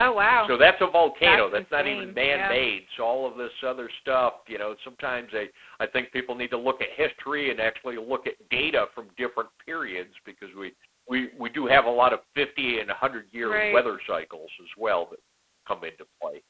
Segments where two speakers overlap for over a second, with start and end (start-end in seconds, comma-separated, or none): 1.2-2.6